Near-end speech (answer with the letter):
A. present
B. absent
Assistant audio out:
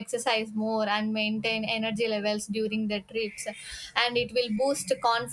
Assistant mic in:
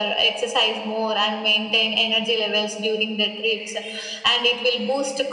B